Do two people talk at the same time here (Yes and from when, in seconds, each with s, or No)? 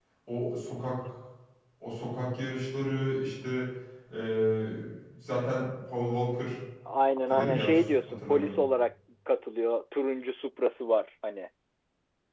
Yes, from 7.4 s